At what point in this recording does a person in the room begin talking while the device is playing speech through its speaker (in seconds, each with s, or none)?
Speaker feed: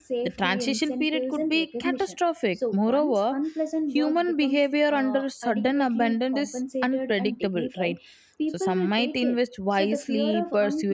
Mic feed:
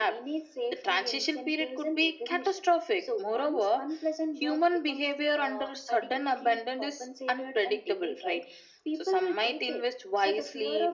none